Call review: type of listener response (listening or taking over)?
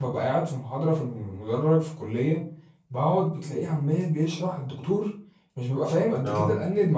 listening